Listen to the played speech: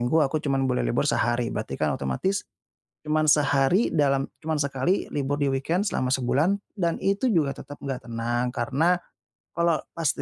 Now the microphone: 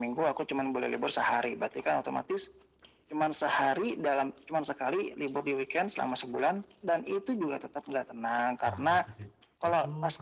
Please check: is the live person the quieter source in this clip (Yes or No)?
Yes